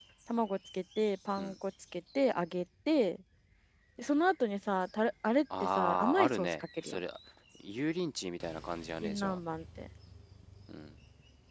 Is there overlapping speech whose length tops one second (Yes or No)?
Yes